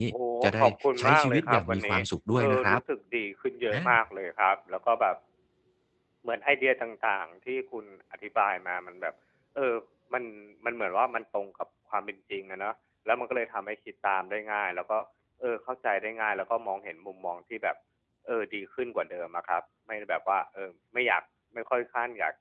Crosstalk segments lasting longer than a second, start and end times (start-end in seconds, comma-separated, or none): 0.6-2.0